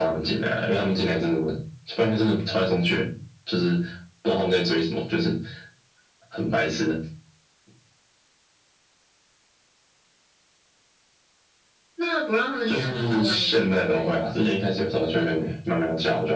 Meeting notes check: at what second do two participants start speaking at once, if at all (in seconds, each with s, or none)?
12.7 s